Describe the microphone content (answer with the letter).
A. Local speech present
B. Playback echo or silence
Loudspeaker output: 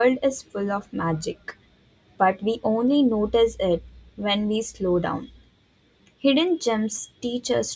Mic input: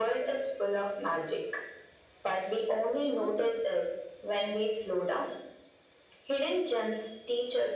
A